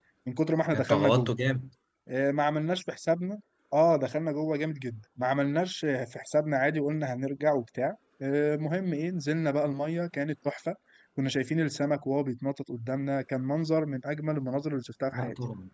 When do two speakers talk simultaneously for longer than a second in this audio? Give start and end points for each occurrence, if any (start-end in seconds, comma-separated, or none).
none